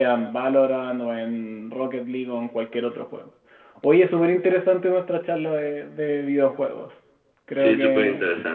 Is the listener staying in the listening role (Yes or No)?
No